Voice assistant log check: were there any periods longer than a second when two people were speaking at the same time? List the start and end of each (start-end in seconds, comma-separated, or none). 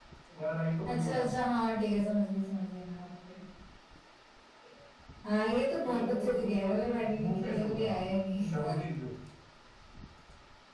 5.8-7.9